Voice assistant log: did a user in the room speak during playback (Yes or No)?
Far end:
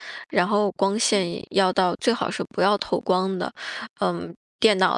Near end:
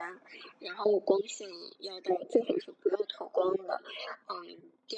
No